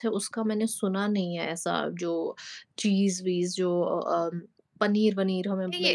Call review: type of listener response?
taking over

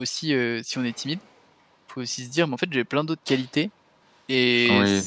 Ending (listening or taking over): listening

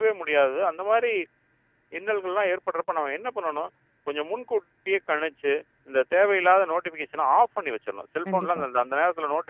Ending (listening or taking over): listening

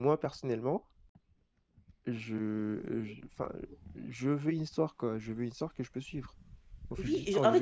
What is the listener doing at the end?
taking over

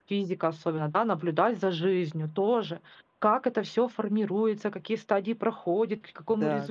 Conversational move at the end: listening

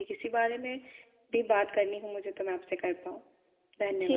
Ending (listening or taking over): taking over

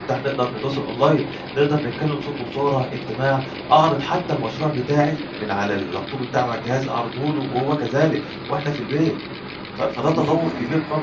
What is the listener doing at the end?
taking over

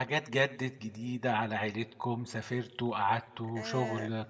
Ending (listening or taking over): listening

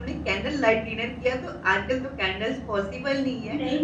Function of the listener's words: listening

